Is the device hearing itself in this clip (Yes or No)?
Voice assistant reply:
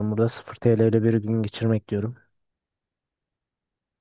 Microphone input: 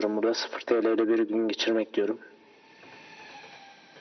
Yes